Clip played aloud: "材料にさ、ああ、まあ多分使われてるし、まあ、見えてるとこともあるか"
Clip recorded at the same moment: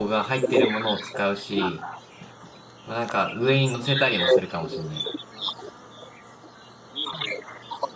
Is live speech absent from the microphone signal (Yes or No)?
No